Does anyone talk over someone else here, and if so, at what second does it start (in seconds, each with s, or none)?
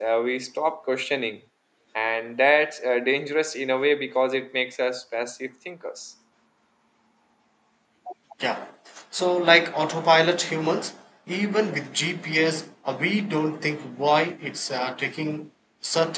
none